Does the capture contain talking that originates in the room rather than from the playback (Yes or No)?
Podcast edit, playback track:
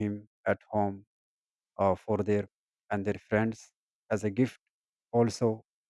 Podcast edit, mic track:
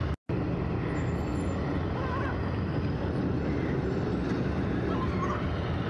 No